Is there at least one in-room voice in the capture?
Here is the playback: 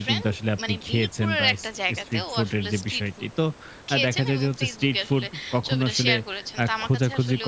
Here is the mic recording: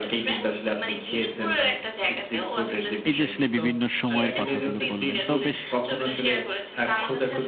Yes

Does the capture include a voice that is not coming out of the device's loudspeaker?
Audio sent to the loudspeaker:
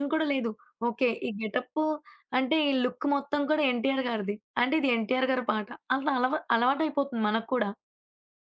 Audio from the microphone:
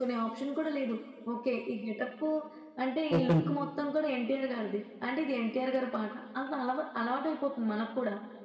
Yes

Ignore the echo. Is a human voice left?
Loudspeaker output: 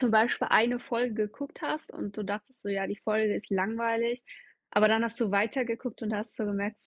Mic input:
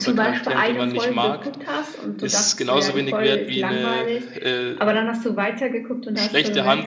Yes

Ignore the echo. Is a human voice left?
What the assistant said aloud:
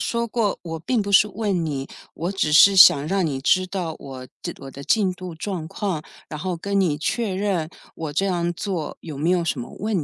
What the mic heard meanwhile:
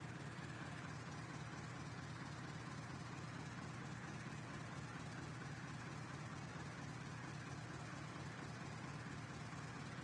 No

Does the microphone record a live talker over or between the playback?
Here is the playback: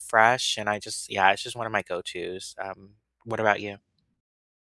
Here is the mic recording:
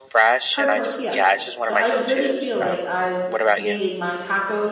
Yes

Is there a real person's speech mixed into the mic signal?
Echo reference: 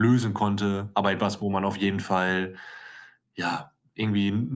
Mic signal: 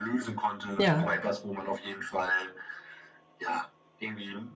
Yes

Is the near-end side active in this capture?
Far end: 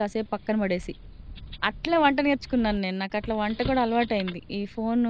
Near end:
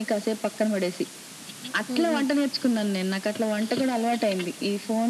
Yes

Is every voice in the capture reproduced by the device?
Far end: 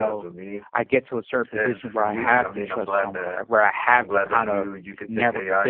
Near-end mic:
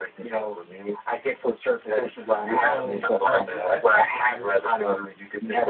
No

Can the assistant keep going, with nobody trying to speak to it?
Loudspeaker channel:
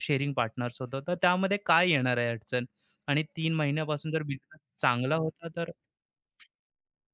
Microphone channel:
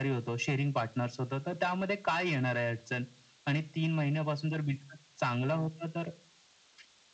Yes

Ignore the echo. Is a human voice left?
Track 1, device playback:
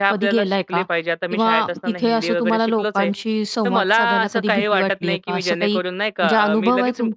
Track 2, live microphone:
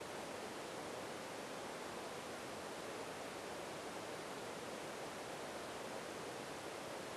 No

